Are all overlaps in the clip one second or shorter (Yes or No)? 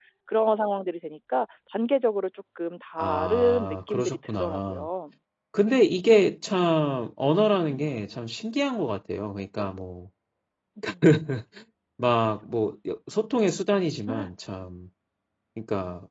No